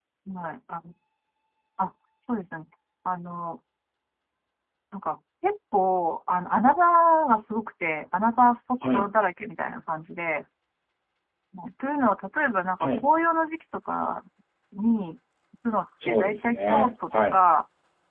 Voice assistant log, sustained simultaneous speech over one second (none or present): present